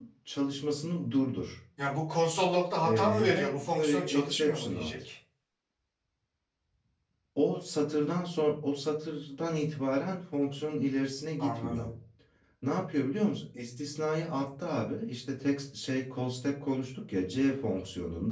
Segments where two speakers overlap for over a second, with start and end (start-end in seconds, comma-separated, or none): 2.8-4.9